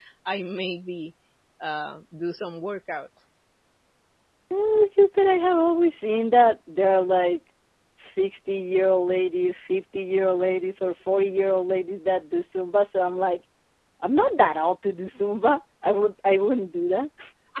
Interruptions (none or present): none